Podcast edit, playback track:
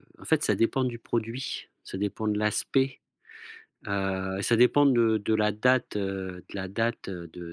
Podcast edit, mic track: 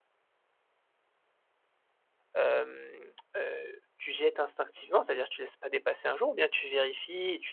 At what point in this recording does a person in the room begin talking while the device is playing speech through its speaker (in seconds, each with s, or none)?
2.3 s